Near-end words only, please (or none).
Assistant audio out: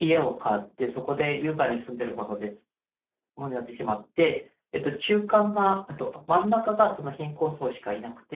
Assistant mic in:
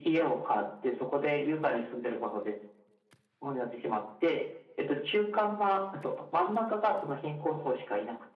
none